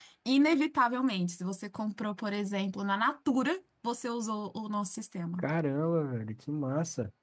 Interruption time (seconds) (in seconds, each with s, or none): none